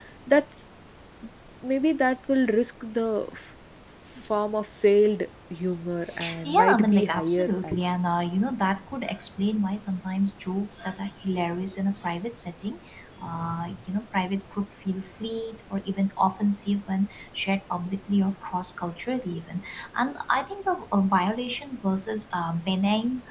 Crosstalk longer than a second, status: present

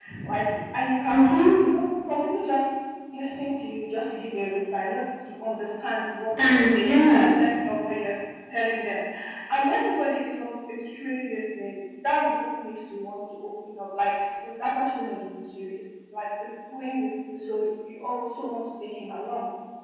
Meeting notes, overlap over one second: present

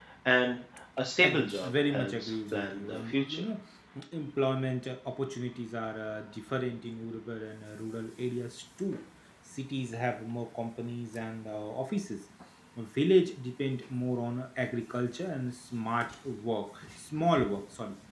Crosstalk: present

